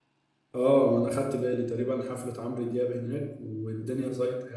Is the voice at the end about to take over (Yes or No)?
No